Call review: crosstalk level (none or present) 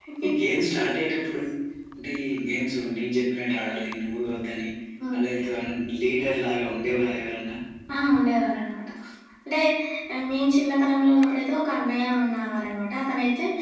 none